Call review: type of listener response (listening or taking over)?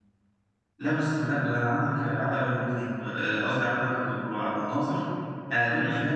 listening